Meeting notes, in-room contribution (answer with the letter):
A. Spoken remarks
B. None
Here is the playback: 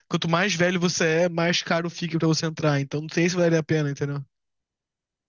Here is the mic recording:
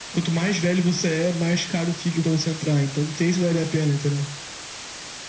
B